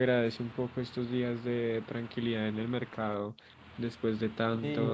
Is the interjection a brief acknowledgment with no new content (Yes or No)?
No